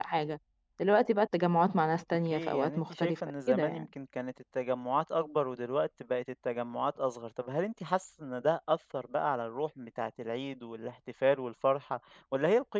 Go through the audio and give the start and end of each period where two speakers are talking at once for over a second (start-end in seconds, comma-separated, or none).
2.3-3.9